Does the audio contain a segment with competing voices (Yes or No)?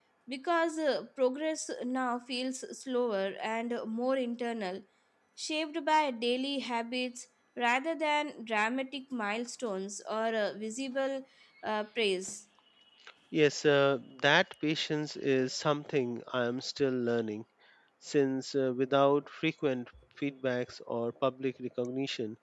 No